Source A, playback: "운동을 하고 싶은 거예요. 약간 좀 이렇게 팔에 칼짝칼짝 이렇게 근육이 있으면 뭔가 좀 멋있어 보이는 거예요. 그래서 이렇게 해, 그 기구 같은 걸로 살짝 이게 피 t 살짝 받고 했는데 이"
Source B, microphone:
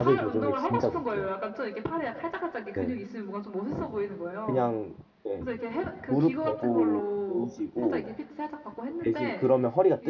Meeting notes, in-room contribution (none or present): present